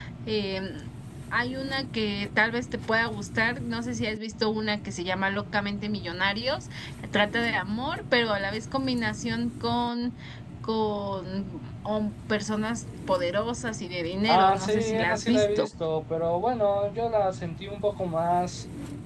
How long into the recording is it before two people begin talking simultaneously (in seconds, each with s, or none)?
14.3 s